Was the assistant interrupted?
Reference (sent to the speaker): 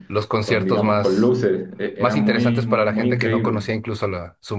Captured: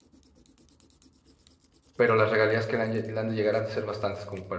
Yes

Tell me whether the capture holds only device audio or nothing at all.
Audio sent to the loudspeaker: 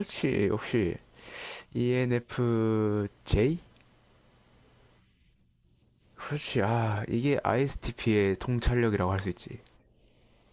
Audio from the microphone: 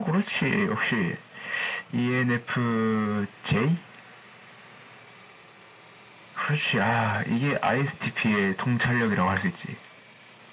Yes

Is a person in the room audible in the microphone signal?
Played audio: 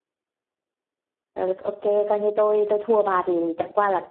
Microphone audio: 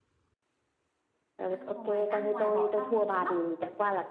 Yes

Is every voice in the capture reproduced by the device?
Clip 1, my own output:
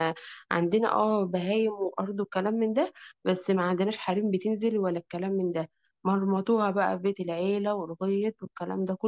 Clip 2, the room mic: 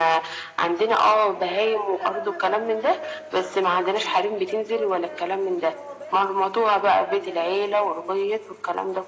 No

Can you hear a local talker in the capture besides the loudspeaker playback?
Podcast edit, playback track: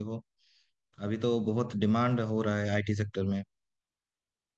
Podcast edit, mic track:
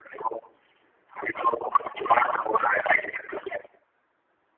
No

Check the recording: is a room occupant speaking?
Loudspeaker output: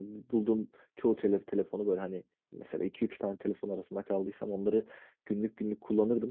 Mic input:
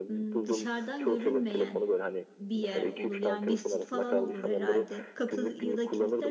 Yes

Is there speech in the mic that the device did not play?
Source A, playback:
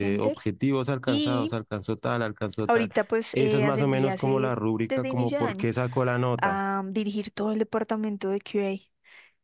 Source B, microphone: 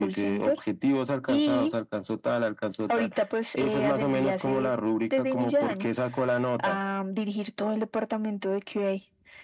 No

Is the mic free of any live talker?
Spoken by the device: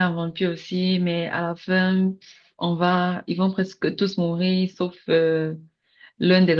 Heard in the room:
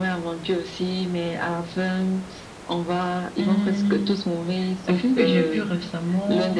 No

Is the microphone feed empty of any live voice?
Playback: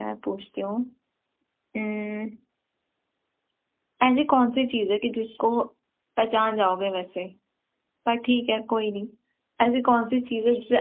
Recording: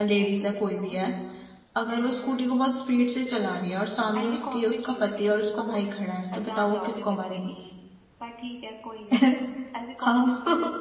No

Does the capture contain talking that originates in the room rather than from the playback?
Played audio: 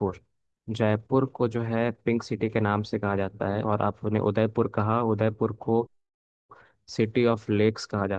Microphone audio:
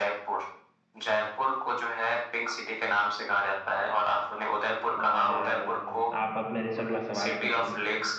Yes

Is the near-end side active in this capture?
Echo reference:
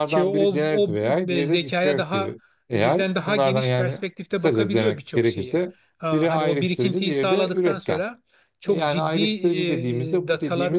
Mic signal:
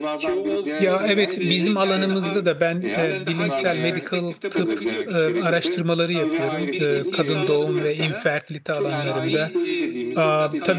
Yes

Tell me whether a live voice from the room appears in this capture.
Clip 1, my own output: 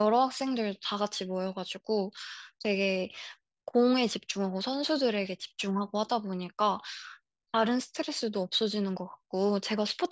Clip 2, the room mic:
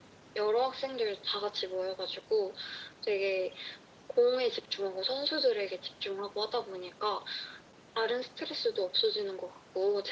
No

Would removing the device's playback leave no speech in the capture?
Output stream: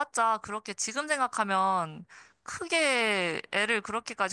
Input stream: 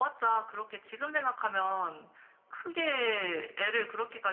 Yes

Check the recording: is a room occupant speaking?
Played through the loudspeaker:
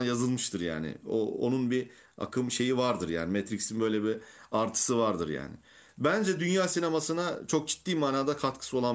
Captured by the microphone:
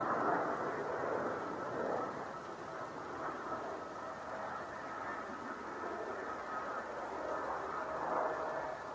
No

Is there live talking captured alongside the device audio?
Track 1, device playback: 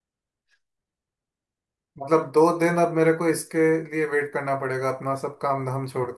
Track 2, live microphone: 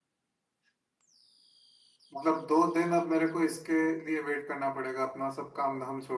No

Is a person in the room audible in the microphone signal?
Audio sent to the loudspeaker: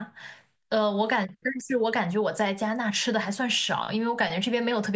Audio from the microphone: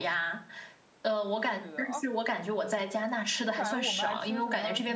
Yes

